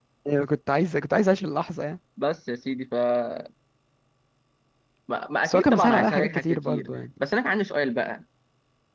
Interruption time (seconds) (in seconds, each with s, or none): 5.4 s